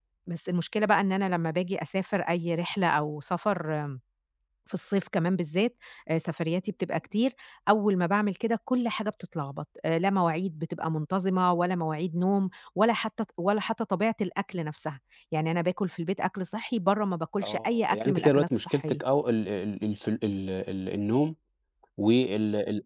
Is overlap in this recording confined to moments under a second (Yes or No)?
No